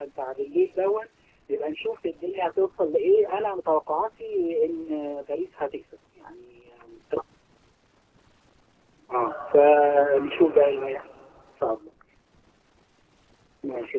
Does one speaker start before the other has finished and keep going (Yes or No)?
Yes